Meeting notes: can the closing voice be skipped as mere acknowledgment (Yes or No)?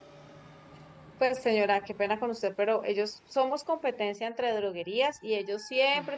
Yes